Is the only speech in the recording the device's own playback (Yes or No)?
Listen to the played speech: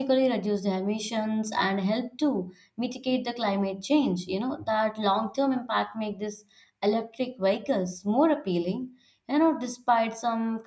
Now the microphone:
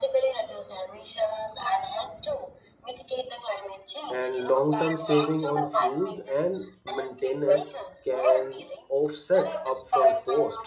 No